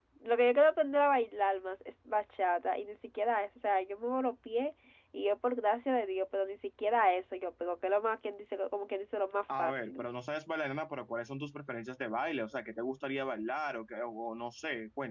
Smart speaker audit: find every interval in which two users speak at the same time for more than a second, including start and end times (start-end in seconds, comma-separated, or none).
none